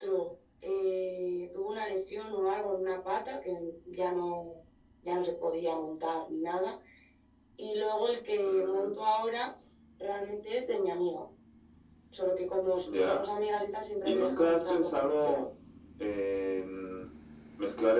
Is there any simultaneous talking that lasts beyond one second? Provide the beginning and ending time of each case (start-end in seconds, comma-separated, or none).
14.0-15.4